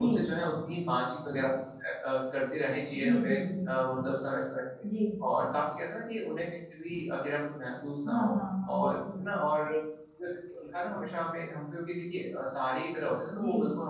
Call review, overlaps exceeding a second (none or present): none